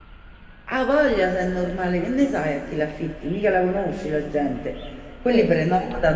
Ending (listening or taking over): listening